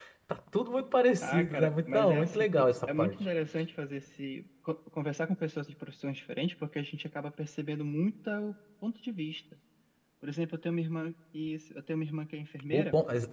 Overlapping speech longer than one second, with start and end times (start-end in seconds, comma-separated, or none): 1.2-3.1